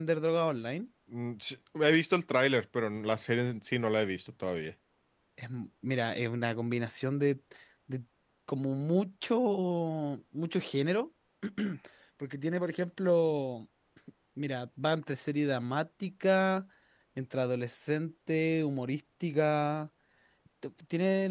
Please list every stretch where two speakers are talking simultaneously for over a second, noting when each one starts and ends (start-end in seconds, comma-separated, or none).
none